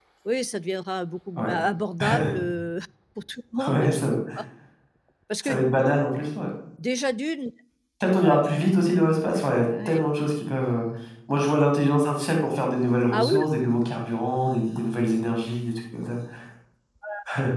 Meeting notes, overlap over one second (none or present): none